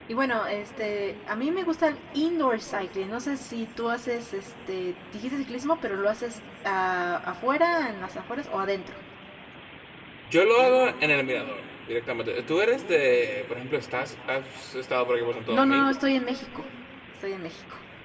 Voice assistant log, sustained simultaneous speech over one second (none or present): none